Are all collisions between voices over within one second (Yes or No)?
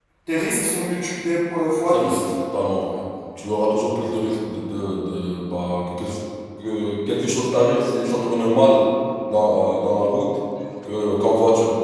Yes